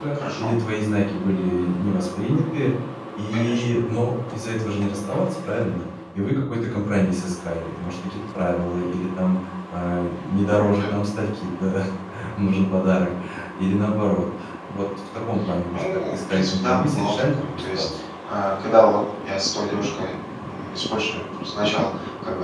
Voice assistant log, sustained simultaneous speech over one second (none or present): present